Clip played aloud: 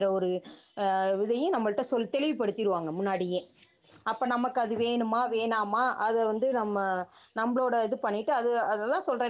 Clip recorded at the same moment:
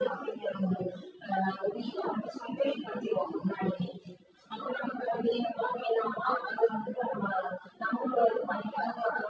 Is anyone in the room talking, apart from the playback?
No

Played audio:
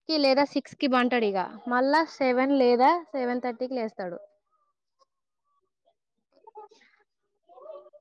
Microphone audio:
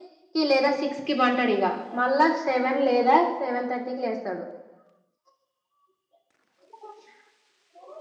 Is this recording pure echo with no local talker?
Yes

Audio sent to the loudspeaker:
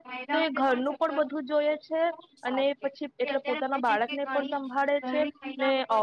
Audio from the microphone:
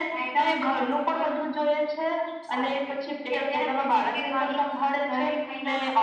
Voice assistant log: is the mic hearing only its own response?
Yes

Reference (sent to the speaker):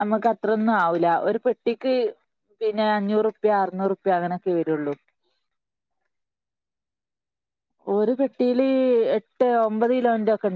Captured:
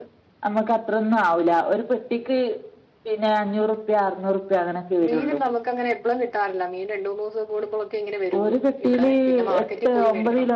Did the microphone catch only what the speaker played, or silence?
No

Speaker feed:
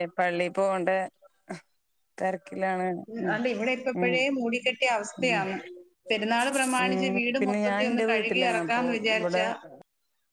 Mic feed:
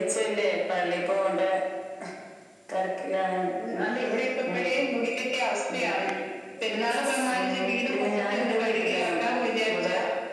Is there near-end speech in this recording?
No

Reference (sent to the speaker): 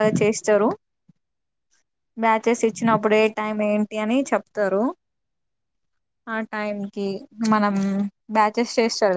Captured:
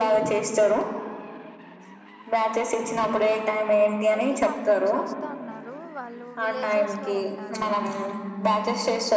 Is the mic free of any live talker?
No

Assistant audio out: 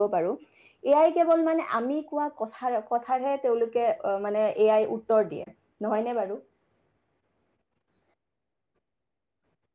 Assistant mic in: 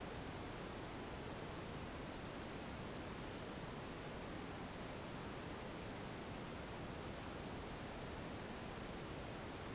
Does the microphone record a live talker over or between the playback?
No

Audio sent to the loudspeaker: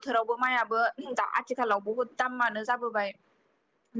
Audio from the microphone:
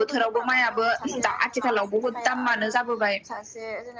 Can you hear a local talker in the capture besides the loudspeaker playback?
Yes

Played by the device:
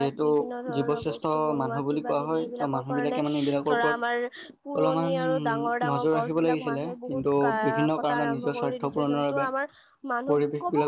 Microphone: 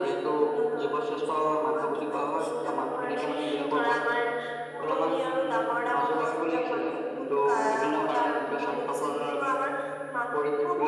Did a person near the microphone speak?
No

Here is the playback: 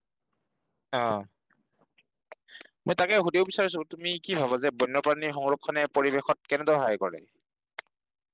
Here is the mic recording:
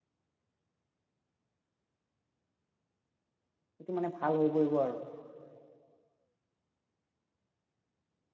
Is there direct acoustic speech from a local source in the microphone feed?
Yes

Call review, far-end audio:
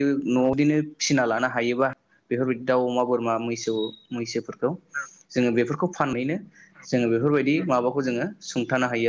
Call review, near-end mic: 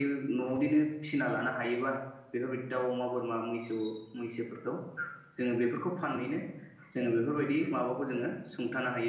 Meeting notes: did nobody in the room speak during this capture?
No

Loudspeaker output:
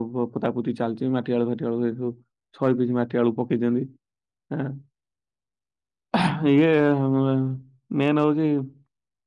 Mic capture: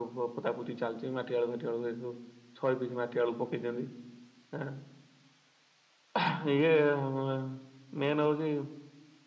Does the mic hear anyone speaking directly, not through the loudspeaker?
No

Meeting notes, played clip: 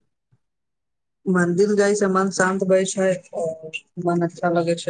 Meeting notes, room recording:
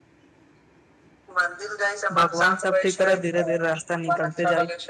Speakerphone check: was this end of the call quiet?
No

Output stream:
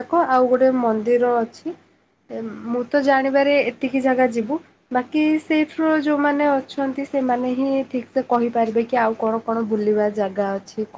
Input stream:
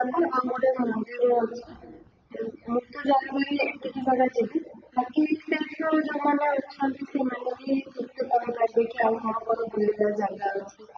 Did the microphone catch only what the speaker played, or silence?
Yes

